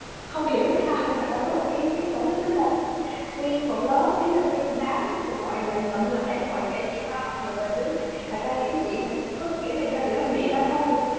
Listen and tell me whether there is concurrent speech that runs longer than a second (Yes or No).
No